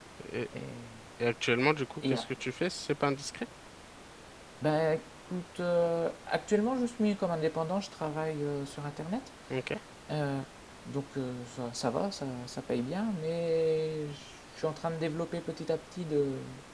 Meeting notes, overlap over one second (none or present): none